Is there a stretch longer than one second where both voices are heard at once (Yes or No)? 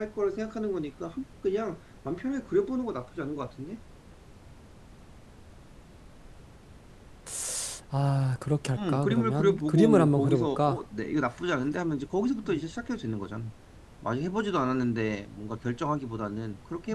Yes